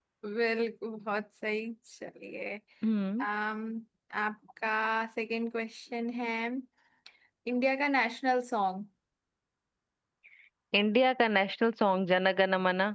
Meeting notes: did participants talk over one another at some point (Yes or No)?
No